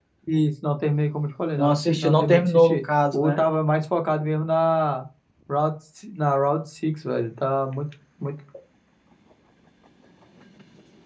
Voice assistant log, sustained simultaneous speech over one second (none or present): present